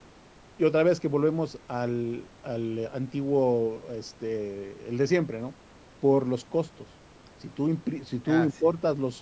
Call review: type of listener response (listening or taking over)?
listening